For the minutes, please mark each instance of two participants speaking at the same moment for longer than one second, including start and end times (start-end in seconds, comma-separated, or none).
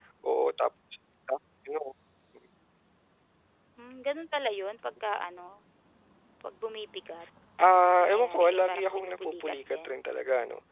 7.8-9.9